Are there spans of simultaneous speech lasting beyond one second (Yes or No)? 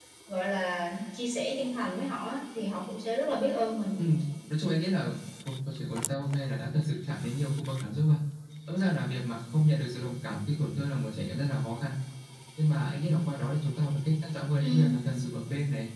No